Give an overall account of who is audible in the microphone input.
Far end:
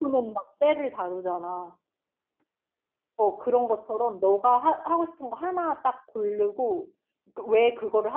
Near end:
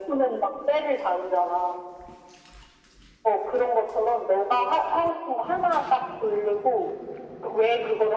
echo only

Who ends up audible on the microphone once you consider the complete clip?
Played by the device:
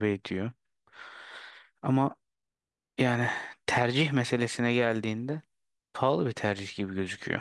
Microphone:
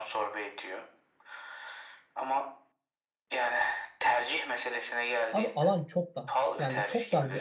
both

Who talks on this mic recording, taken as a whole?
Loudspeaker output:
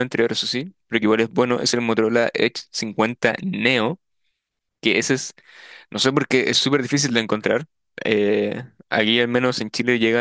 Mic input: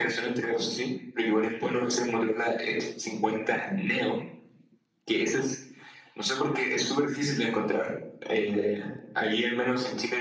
echo only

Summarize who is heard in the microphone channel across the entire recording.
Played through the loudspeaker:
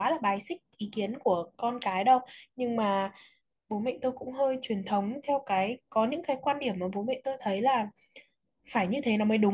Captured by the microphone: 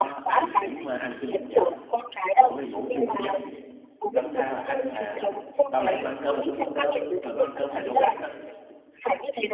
both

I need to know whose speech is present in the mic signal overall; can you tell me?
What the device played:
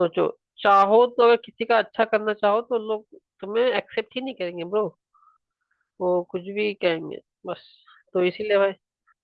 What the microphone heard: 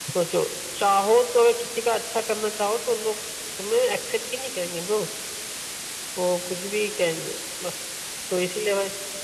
echo only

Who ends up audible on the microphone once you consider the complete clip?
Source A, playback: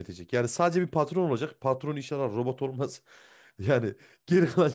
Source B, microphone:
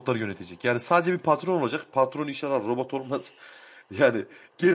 echo only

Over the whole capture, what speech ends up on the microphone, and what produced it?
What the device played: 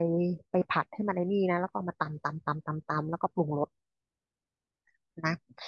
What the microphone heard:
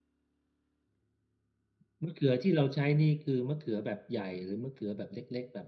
user only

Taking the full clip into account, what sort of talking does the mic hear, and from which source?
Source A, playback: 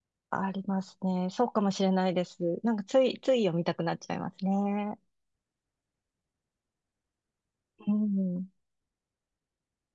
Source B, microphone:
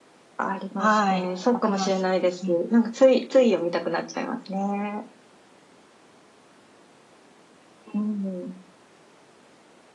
both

